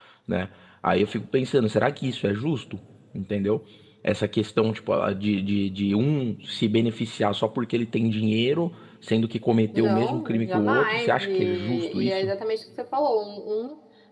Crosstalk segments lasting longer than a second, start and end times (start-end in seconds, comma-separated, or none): 9.8-12.3